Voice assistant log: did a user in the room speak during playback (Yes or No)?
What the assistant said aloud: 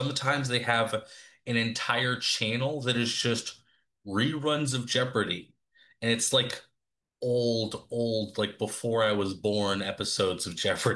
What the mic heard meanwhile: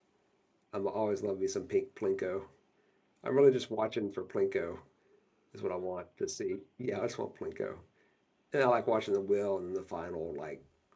Yes